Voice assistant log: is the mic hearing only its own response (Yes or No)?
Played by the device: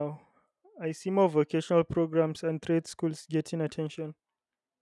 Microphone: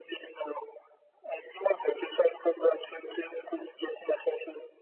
Yes